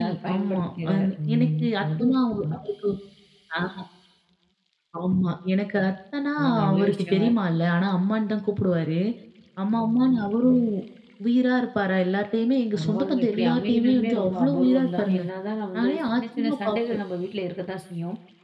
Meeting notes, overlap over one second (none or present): present